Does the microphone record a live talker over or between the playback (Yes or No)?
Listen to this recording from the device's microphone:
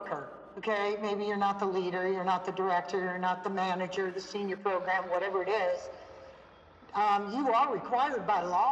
No